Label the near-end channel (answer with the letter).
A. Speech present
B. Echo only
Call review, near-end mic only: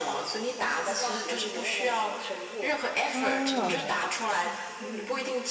A